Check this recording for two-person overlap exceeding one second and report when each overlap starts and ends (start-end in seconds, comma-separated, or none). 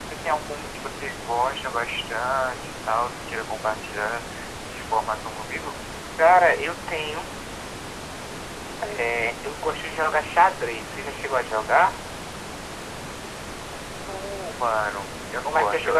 none